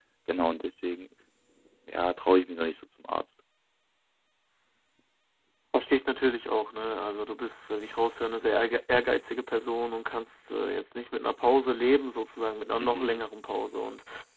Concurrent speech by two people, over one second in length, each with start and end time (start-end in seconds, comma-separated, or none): none